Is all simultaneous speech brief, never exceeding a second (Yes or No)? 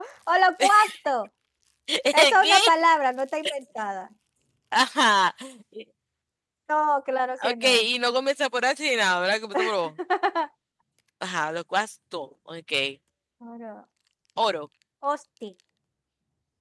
Yes